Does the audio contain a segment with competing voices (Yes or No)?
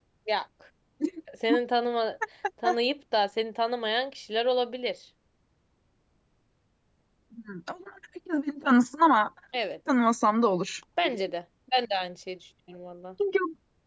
No